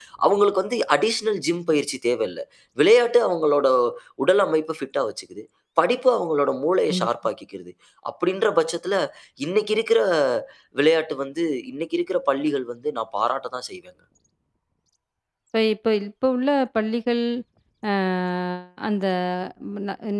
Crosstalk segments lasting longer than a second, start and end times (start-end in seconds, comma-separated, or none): none